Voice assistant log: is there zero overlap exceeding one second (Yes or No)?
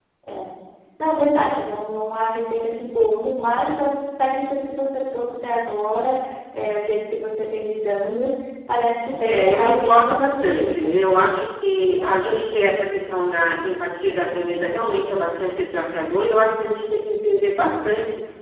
No